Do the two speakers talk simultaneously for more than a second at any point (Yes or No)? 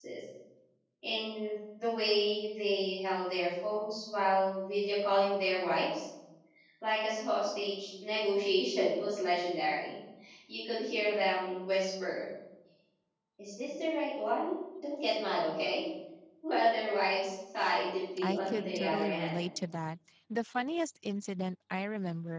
Yes